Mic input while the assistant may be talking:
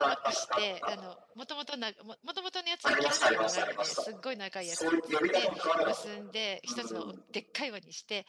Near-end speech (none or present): present